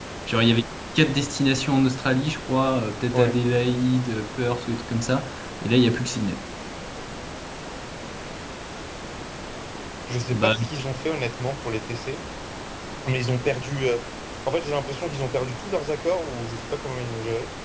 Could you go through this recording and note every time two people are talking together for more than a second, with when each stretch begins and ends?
none

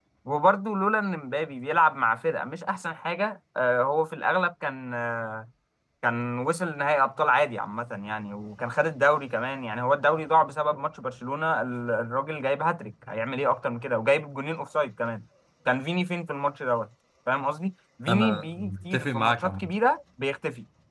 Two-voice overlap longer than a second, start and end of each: 18.1-19.7

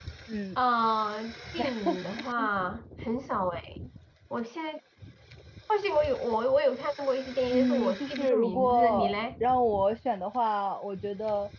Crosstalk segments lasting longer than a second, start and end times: 7.5-9.1

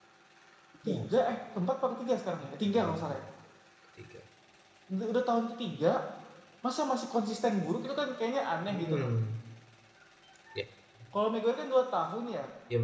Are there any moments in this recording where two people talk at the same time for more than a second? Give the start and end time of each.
none

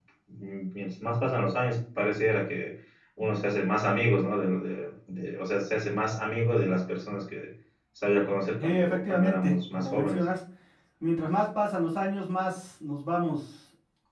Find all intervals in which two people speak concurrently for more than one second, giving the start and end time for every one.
8.6-10.3

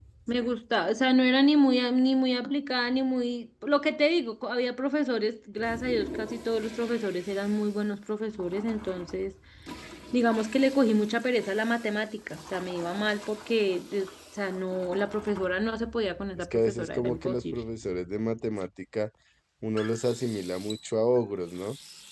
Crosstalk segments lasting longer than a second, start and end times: 16.4-17.6

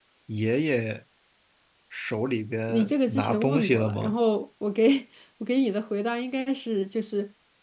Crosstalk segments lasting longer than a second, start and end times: 2.7-4.2

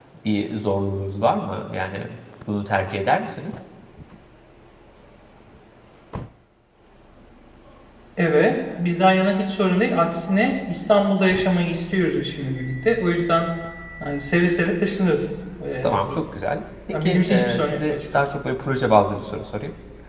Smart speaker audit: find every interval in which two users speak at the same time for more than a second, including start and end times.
16.9-18.3

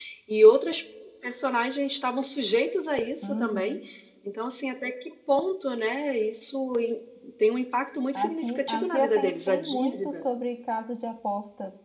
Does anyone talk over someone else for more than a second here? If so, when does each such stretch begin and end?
8.1-10.2

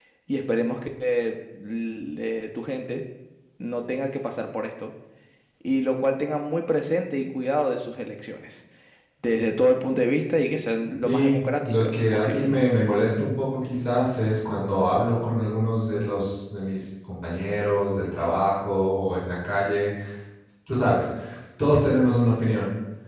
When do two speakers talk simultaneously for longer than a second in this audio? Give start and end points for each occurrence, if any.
11.0-12.6

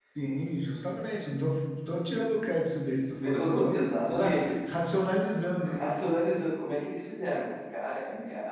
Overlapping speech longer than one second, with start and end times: 3.2-4.6

